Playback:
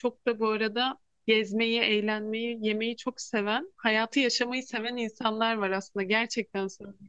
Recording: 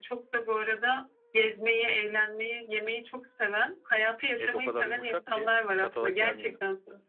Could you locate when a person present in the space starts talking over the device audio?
4.3 s

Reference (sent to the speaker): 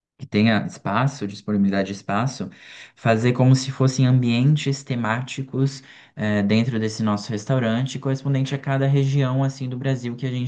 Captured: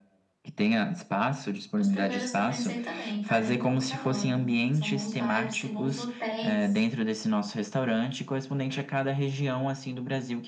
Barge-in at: 1.8 s

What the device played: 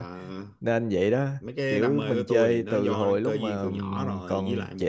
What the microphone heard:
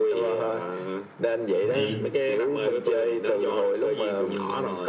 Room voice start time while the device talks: 1.7 s

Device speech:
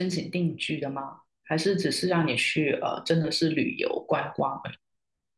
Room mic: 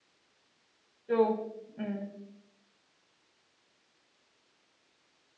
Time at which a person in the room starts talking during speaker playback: 1.1 s

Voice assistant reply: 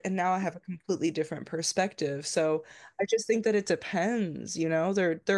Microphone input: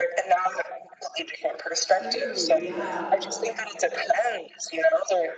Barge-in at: 1.8 s

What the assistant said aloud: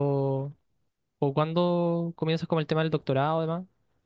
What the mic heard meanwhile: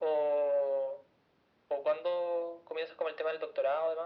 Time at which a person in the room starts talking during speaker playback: none

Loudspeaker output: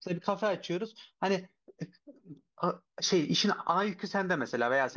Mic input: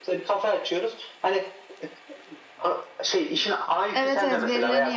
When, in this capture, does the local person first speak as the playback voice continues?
3.9 s

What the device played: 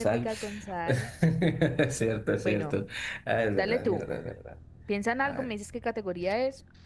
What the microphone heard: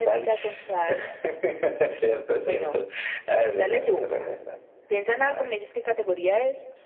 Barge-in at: 3.3 s

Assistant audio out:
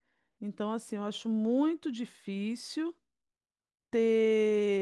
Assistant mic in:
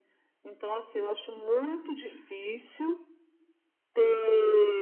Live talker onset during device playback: none

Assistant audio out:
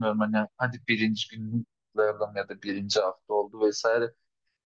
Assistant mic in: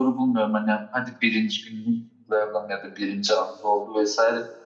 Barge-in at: none

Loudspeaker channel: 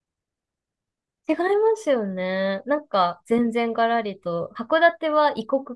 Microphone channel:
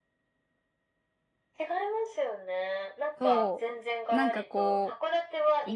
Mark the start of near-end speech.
3.2 s

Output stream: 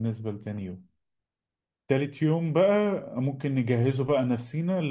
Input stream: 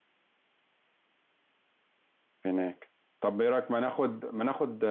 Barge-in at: 2.4 s

